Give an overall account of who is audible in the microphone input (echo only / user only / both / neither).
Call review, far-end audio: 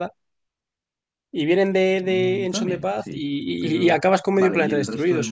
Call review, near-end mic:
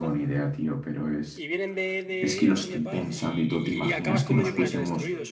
both